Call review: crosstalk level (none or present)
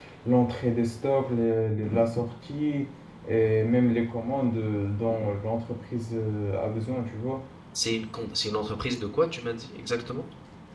none